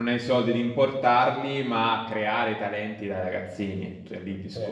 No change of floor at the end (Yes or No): No